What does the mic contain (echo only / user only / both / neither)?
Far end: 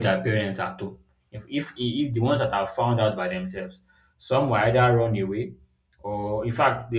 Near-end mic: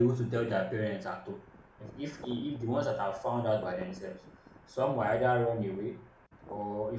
echo only